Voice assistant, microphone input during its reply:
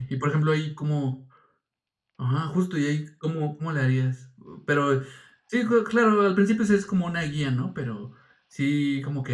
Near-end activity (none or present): present